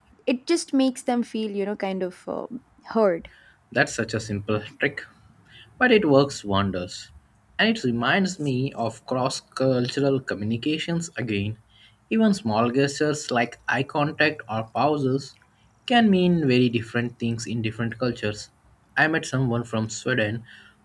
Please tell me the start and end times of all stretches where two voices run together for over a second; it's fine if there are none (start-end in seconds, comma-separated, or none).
none